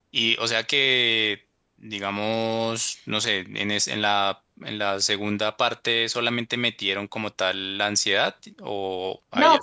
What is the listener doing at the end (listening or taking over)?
taking over